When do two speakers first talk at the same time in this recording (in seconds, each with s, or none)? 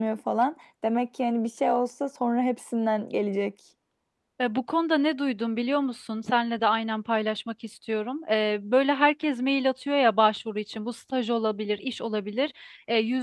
none